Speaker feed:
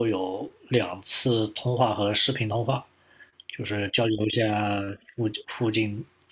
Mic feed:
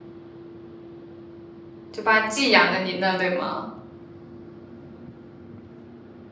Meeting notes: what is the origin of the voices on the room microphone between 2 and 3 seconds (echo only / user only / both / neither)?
user only